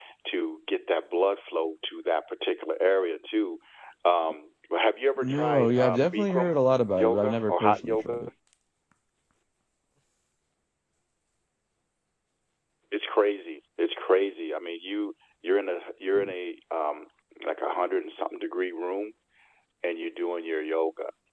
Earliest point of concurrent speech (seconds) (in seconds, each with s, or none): 5.2 s